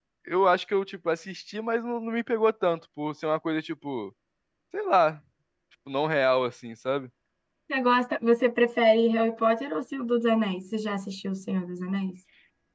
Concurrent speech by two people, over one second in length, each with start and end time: none

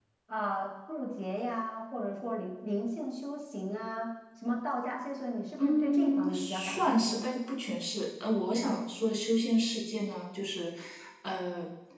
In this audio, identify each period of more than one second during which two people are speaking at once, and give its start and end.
5.6-7.2

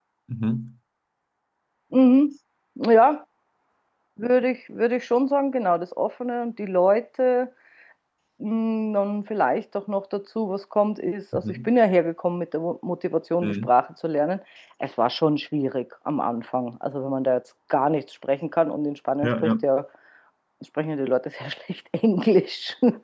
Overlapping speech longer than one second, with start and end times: none

